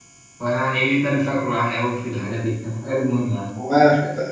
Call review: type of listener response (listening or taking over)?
taking over